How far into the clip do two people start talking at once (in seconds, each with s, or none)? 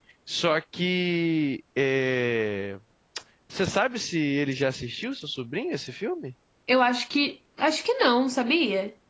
none